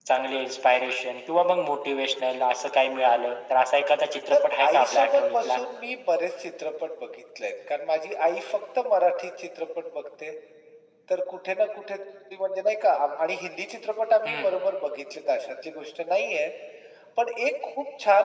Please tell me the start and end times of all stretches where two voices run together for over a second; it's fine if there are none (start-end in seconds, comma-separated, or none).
4.3-5.6